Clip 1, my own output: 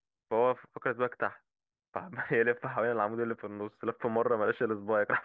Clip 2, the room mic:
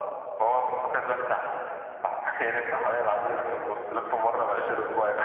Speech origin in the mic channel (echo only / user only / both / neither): echo only